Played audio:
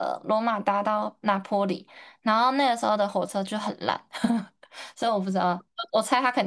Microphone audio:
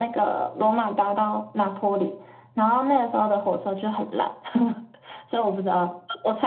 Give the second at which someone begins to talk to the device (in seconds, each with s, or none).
none